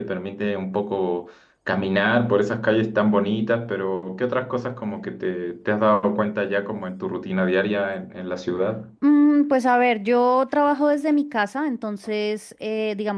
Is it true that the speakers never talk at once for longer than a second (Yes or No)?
Yes